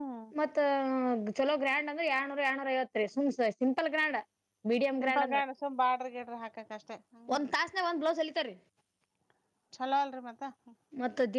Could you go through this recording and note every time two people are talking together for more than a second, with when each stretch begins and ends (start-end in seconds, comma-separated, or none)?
none